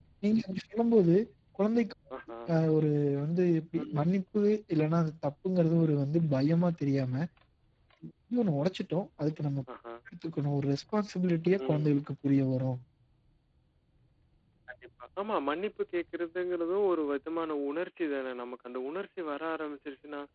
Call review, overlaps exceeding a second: none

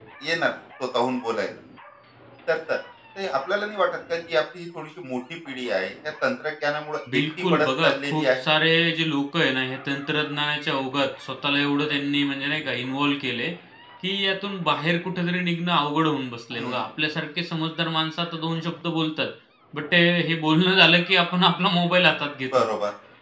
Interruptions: present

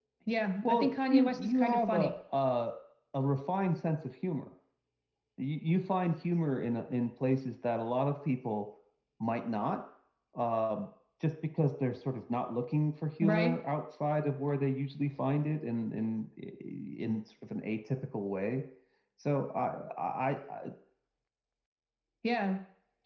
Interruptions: present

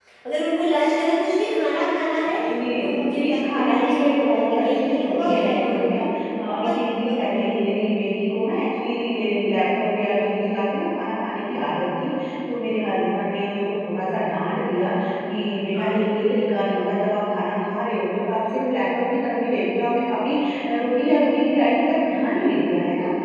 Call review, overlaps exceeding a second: present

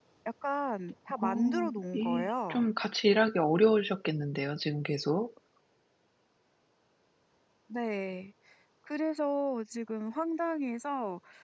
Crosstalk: present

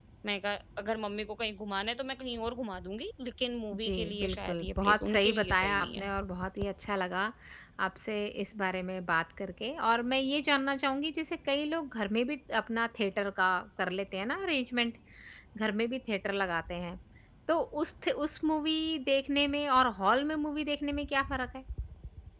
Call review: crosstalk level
present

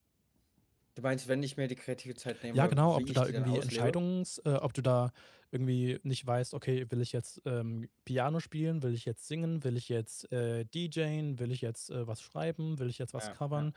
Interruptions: present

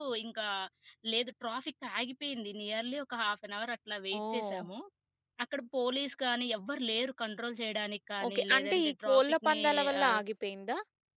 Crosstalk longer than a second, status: present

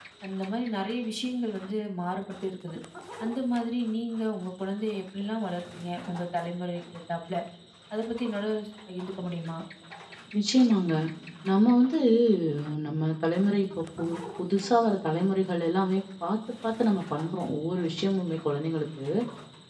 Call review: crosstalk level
none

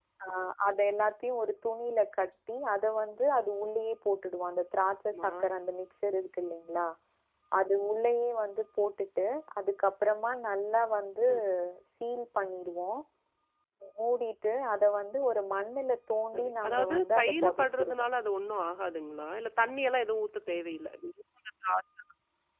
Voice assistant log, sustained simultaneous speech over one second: present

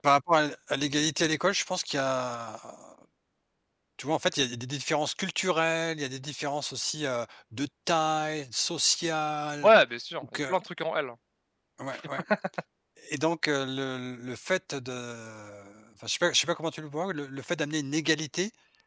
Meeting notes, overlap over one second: none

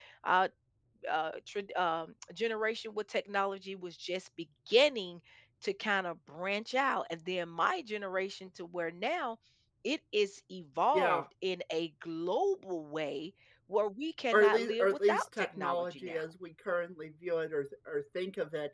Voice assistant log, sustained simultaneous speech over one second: present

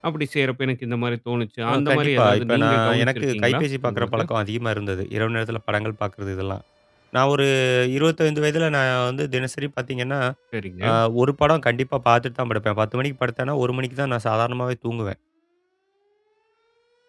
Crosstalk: present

